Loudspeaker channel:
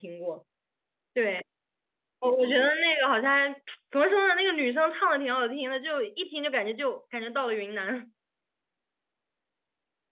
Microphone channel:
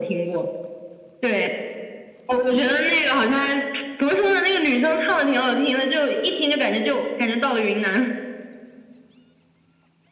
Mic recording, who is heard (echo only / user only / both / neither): echo only